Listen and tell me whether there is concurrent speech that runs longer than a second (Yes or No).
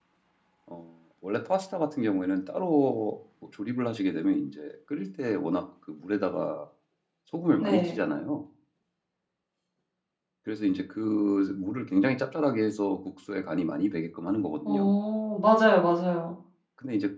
No